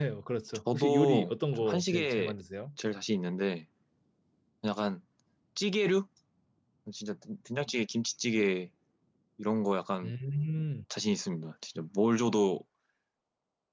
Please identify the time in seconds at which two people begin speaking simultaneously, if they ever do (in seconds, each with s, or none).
0.7 s